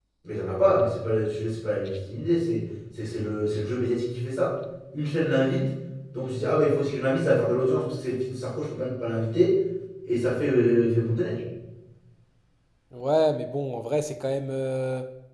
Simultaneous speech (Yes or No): No